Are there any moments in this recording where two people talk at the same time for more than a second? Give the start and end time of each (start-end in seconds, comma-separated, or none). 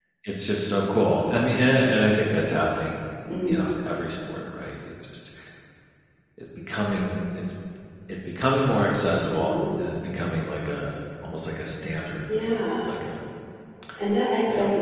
none